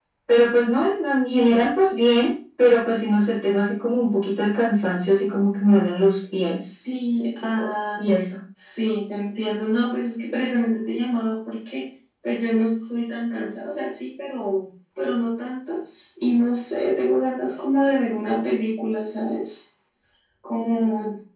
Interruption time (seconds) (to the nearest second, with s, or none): none